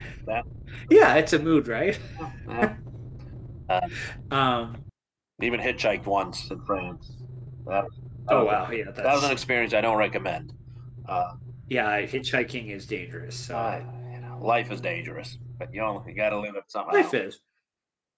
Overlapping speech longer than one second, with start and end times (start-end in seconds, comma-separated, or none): none